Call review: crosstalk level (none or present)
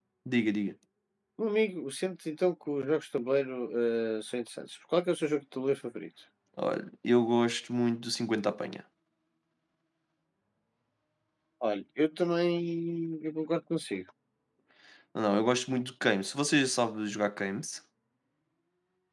none